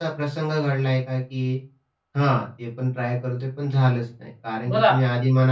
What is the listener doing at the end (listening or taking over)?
listening